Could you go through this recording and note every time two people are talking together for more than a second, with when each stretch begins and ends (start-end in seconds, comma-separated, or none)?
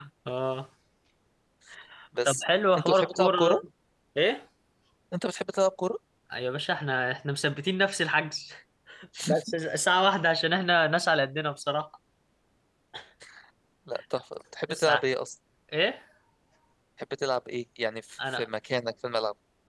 2.2-3.6